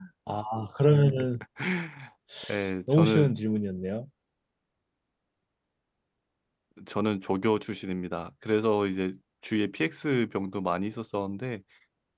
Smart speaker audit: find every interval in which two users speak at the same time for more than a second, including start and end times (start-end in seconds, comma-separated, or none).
none